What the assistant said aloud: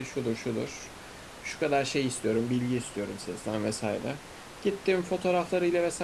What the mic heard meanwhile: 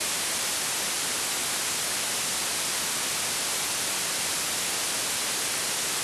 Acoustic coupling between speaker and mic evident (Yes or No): No